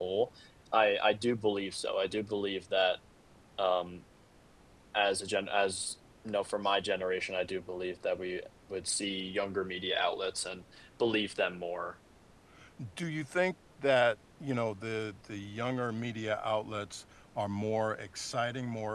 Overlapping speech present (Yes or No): No